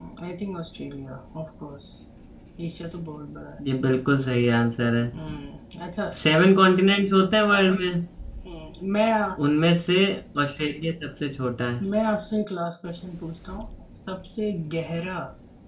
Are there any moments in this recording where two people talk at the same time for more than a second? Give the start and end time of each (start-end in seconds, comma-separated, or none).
none